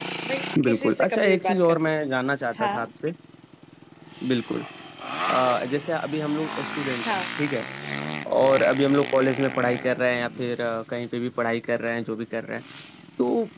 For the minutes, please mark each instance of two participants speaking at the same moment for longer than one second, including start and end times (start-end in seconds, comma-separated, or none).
0.6-1.9